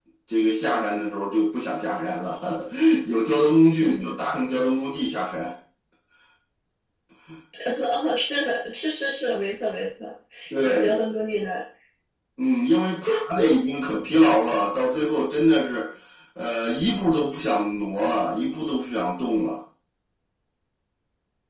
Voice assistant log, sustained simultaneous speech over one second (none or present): none